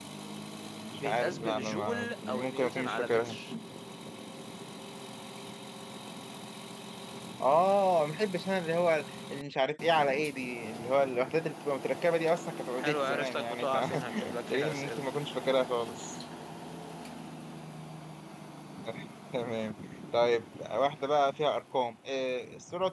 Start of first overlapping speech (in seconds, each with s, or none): 1.0 s